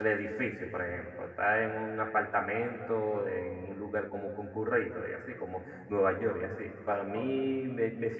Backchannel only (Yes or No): Yes